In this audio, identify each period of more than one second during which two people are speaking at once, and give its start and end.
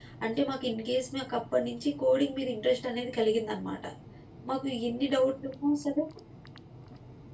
none

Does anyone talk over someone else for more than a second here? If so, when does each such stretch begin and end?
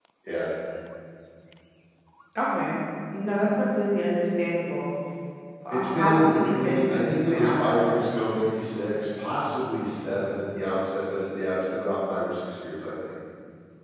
5.7-8.2

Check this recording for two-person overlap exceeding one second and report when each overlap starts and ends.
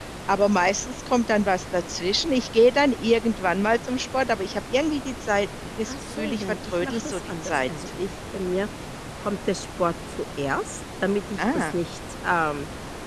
5.9-7.7

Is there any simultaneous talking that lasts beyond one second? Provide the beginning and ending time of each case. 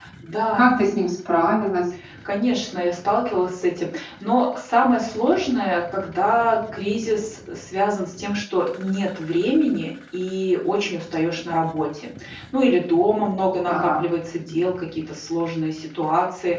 none

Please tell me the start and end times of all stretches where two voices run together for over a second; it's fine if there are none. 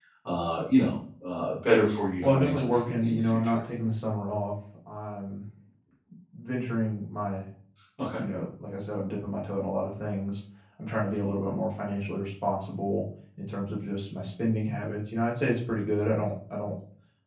2.2-3.6

